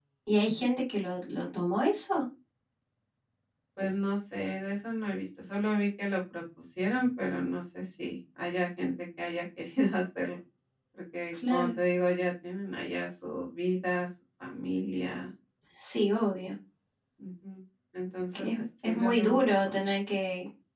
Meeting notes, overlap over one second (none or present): present